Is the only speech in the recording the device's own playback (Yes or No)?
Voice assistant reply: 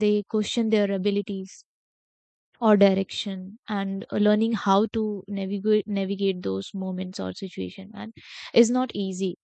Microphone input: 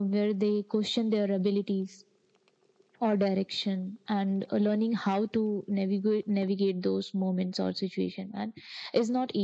Yes